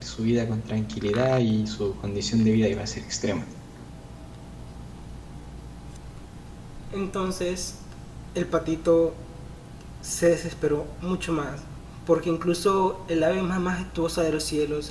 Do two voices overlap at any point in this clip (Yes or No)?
No